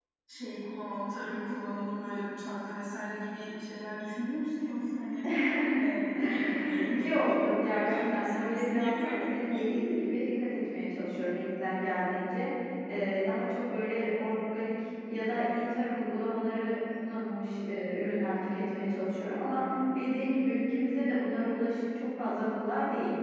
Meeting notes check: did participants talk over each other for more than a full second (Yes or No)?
Yes